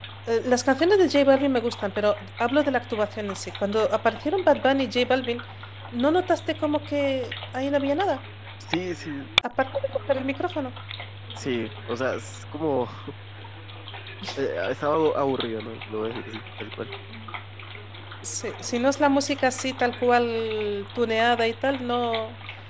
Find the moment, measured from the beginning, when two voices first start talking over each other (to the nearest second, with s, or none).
none